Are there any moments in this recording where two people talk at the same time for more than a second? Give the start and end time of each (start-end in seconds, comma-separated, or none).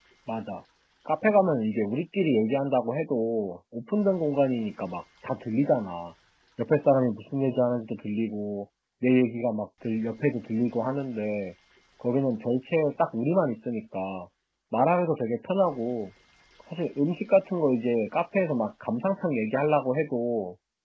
none